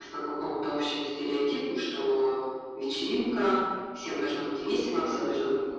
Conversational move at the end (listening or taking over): listening